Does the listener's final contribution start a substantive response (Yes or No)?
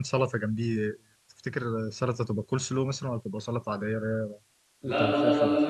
Yes